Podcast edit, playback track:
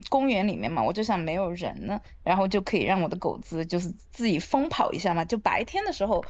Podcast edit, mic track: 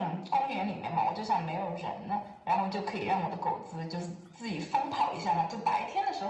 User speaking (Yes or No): No